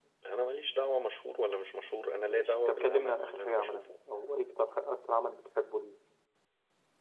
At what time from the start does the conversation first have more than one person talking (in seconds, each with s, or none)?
2.3 s